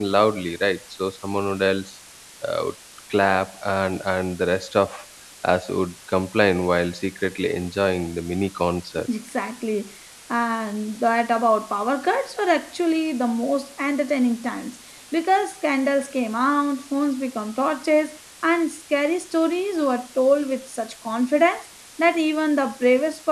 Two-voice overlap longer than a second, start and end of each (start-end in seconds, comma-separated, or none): none